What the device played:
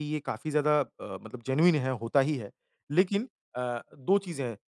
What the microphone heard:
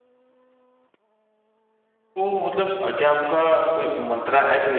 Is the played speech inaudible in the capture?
Yes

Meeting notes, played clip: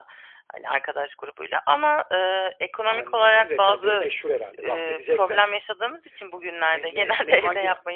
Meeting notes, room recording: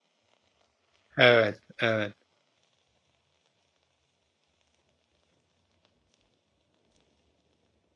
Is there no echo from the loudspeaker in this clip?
Yes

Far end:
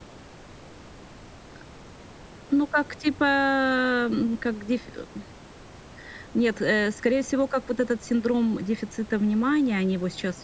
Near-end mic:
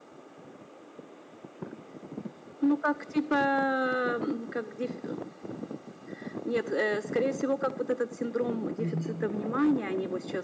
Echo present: Yes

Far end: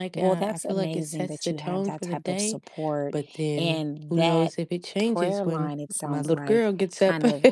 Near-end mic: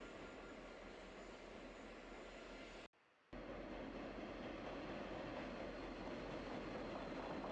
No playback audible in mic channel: Yes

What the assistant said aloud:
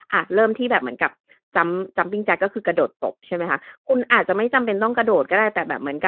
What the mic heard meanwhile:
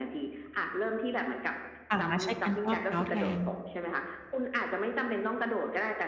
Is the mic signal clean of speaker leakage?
No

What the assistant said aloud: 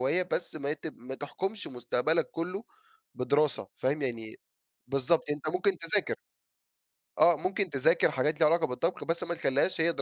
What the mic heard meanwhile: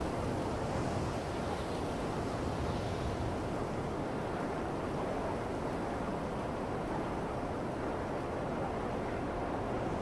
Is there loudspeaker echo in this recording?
No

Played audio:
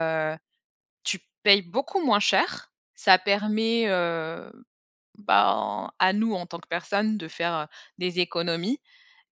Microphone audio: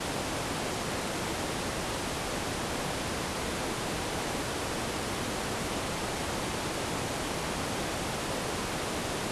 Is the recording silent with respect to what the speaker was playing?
Yes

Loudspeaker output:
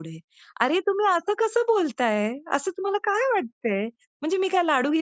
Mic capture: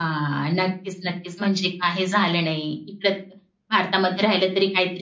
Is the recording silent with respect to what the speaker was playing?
Yes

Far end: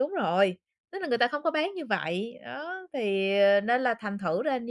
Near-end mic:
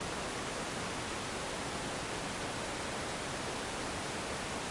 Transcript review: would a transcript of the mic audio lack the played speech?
Yes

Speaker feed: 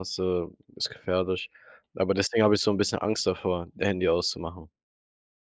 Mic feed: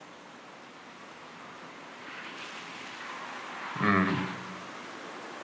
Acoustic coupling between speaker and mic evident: No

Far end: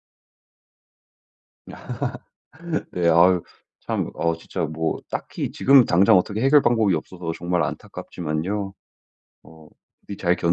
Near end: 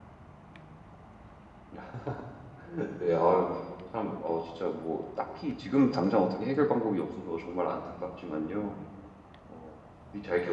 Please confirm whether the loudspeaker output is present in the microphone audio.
Yes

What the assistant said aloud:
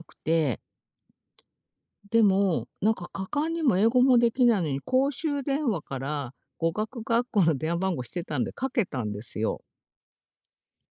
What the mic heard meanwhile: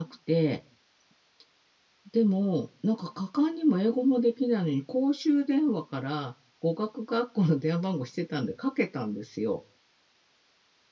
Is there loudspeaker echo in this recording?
Yes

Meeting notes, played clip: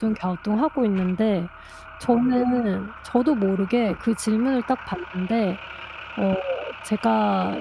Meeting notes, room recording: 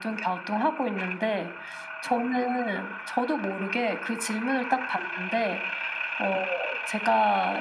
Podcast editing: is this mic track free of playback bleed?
No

